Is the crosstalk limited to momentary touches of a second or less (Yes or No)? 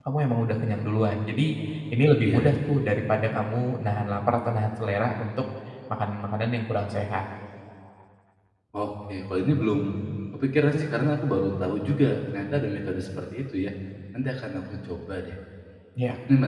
Yes